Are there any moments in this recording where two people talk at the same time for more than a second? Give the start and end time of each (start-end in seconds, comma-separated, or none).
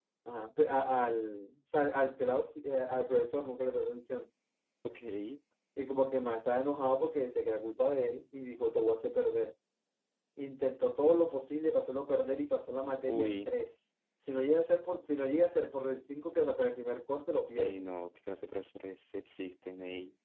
none